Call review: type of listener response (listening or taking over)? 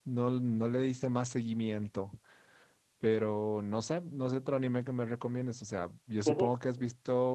listening